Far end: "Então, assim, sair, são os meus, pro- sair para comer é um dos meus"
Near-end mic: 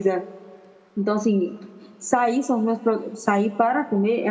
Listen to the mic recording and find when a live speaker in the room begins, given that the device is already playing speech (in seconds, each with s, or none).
none